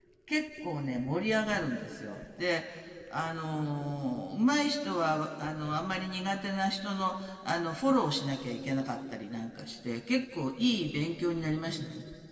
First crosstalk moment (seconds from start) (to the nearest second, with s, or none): none